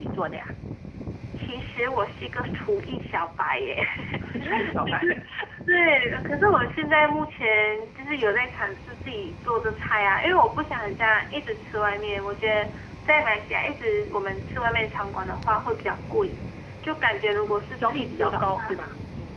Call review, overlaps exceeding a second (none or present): present